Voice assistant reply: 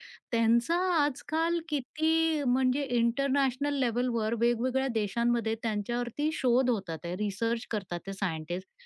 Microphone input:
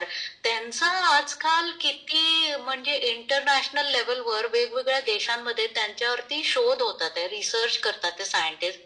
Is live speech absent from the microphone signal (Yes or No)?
Yes